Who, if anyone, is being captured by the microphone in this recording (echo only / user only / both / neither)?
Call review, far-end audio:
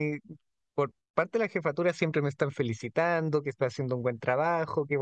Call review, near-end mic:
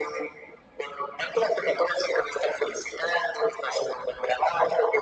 echo only